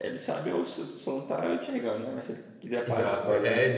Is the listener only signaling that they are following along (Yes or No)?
No